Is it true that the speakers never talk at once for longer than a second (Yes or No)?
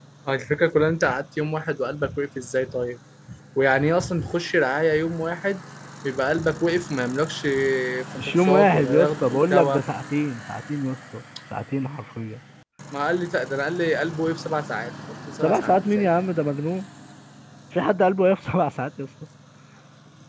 No